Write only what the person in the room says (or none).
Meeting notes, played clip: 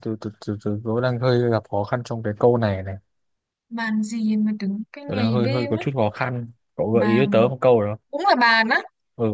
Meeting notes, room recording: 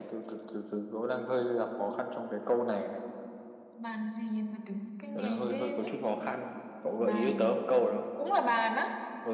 none